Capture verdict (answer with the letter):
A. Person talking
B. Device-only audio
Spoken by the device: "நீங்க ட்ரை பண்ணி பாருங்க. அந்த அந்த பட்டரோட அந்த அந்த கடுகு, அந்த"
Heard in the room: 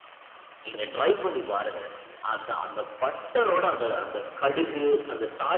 A